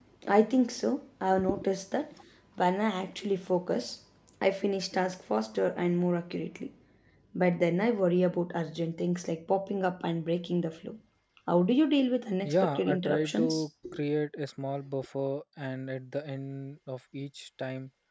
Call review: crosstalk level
present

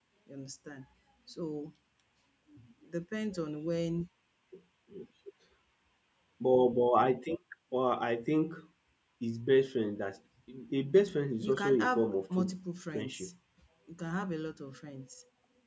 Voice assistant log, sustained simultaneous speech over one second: present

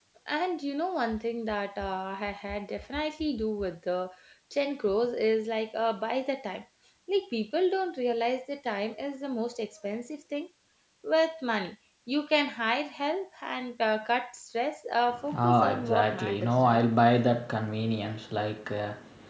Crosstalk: present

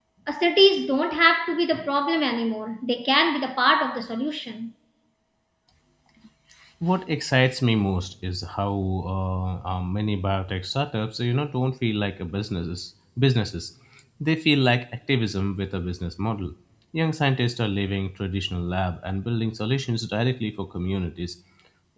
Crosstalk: none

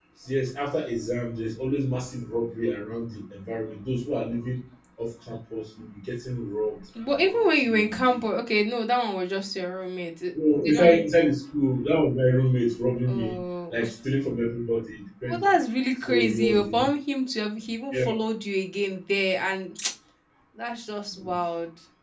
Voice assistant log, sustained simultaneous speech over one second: present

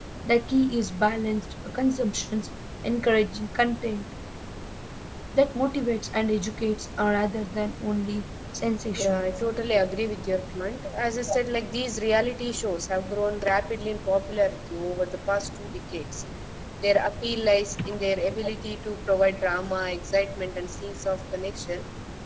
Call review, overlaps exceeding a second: none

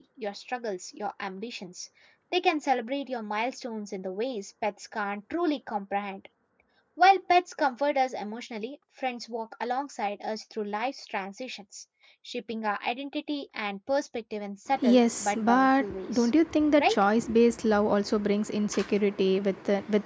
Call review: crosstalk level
present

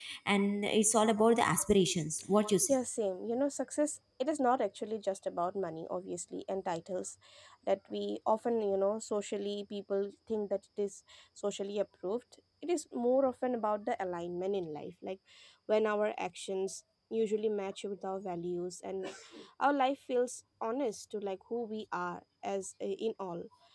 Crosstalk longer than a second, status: none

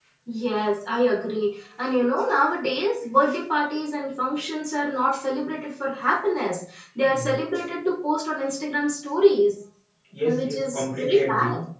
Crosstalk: present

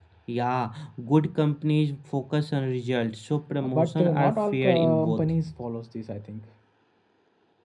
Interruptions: present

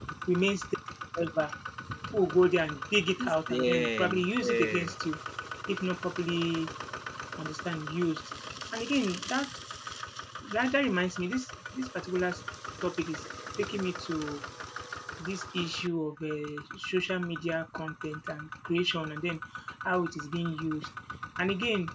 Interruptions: present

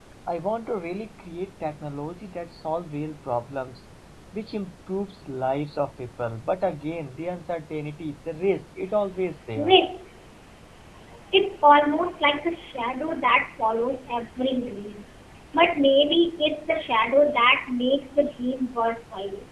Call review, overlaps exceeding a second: none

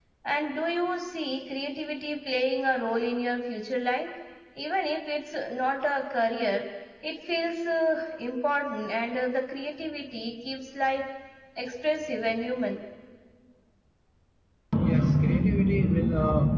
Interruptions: none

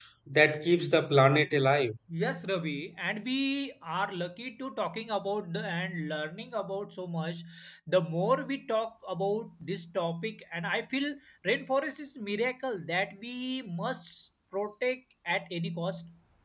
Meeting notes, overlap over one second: none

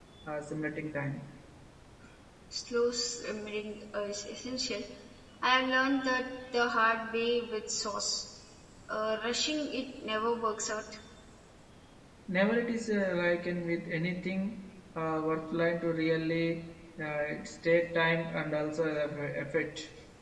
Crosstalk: none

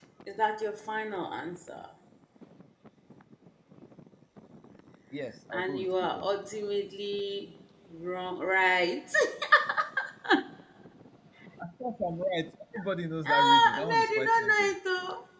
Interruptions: present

